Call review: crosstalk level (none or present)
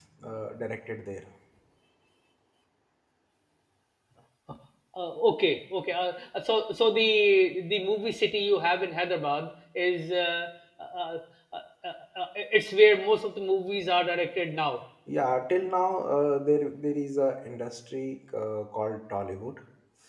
none